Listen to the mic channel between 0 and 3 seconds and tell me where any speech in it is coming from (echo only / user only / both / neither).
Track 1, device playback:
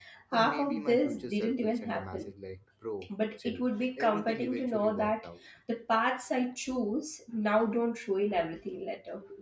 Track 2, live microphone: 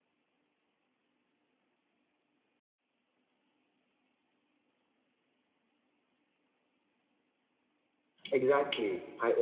neither